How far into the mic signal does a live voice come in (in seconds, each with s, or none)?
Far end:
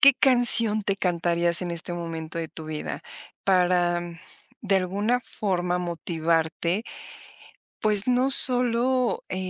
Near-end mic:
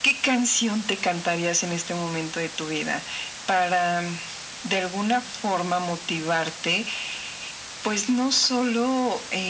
none